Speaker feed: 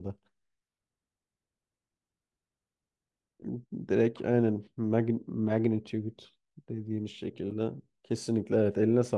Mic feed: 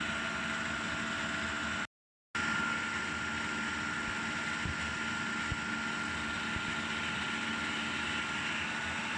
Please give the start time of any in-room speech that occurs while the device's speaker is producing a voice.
none

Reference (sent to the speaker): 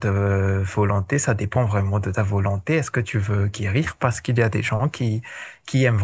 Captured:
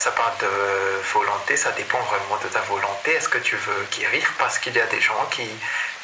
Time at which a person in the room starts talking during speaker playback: none

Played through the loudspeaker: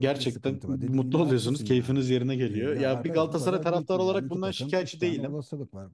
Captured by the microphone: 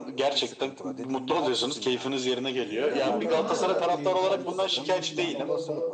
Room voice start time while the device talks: 3 s

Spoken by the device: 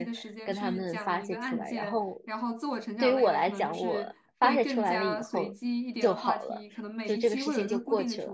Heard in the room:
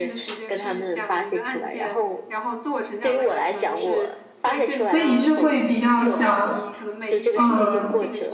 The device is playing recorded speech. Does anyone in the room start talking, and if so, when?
5 s

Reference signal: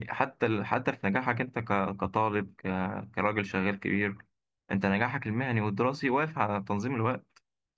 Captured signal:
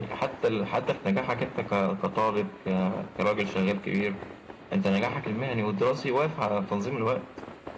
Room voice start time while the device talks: none

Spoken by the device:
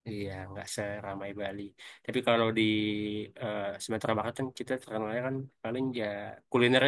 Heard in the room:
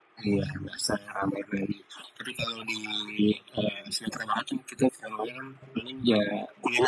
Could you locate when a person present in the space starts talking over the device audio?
none

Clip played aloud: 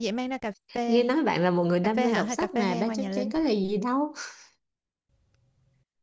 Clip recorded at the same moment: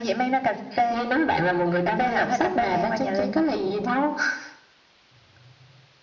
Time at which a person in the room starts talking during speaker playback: none

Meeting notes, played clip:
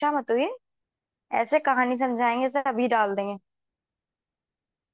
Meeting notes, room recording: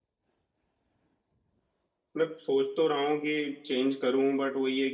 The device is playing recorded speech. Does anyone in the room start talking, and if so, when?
2 s

